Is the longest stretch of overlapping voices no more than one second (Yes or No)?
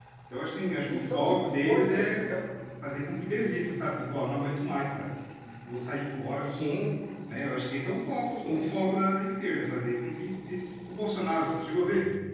No